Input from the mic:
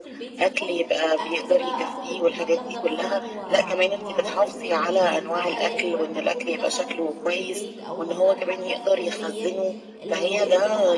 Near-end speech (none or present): present